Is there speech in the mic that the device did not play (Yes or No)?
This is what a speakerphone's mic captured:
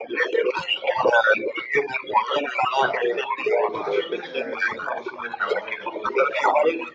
Yes